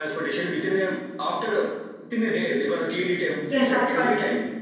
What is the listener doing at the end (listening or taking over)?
taking over